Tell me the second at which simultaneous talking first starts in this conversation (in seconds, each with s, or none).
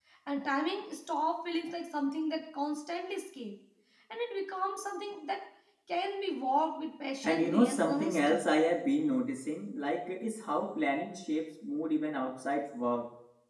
7.2 s